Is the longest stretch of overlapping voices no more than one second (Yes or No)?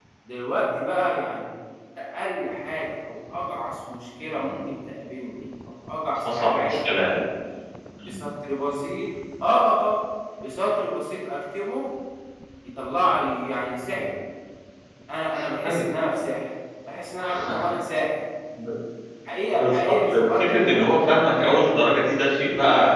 No